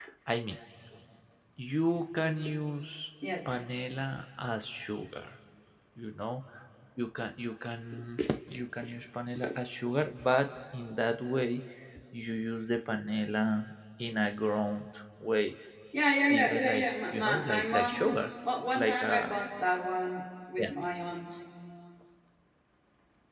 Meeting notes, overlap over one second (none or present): present